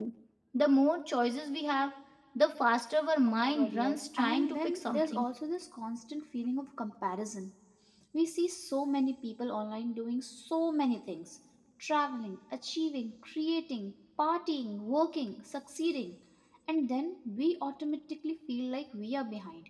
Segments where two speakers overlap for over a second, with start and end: 3.3-5.2

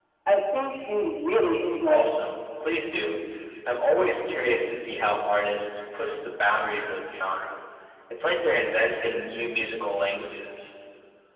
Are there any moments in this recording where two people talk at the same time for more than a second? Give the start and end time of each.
none

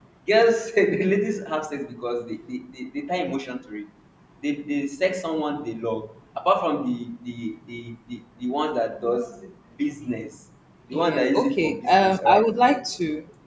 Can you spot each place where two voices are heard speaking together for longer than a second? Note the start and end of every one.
10.9-12.4

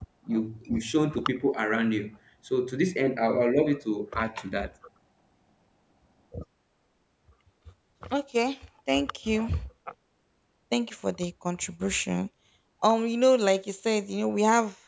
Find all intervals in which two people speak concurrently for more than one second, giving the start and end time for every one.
none

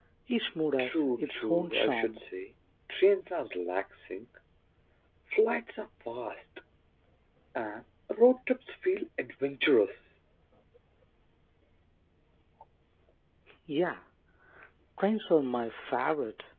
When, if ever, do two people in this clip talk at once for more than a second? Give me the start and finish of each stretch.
0.8-2.2

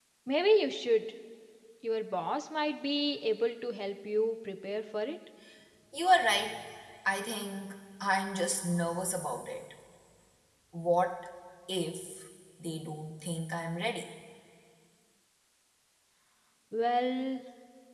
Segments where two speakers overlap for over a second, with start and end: none

